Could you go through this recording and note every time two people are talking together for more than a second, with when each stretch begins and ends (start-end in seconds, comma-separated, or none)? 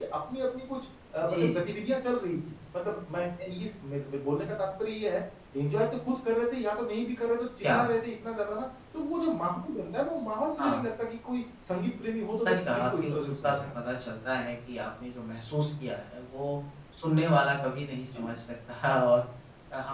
12.4-13.7